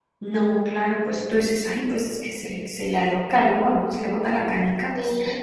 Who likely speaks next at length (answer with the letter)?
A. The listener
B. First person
A